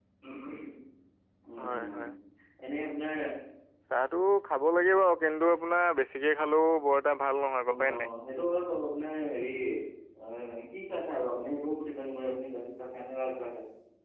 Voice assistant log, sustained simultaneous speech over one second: none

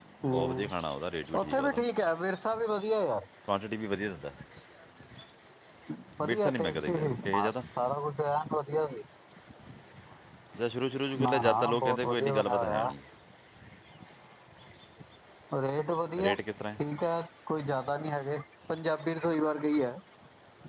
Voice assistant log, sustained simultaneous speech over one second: present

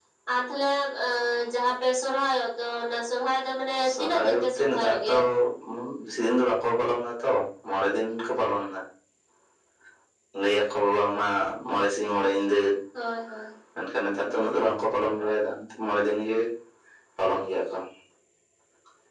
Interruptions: present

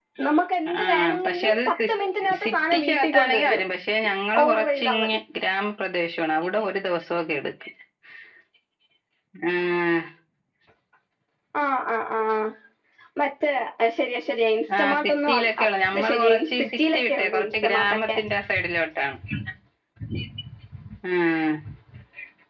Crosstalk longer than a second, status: present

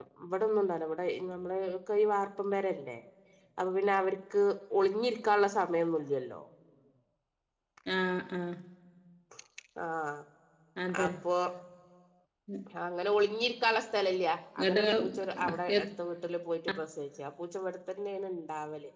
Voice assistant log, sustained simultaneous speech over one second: present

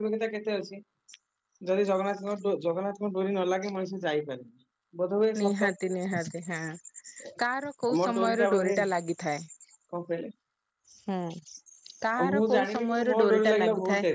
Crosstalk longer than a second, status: present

